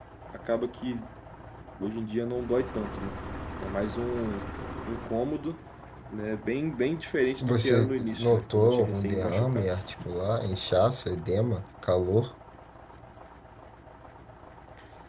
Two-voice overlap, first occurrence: 7.4 s

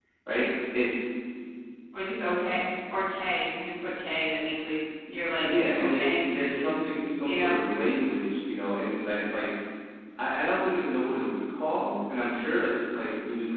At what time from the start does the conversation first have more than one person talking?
5.4 s

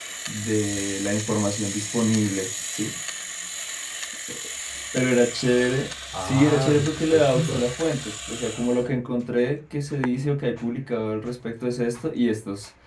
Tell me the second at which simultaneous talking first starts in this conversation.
6.1 s

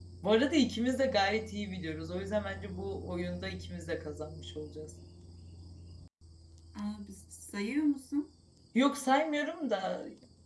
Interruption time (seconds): none

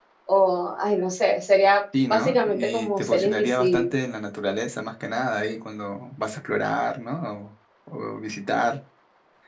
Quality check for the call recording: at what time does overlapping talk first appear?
1.9 s

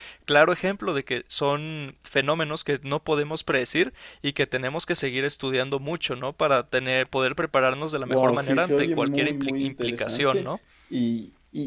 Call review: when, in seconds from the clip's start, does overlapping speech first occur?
8.1 s

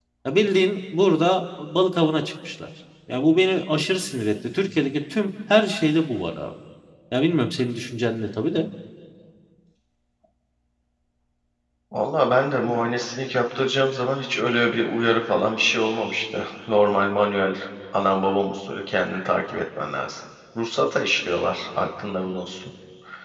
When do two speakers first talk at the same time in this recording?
none

